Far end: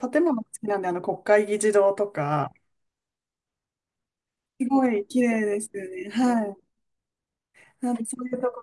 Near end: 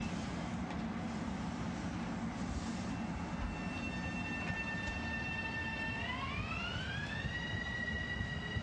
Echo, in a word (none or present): none